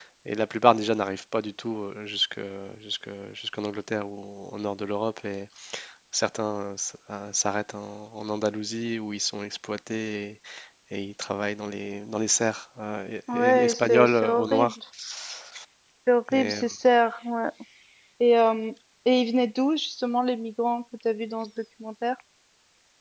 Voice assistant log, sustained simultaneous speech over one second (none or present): present